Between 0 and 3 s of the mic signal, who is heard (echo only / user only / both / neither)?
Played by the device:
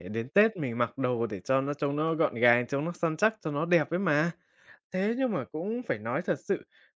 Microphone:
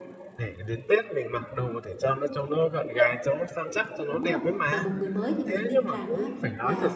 echo only